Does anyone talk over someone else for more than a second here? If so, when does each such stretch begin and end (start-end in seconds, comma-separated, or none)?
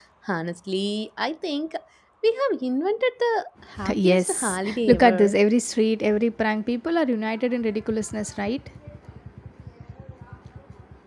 3.9-5.3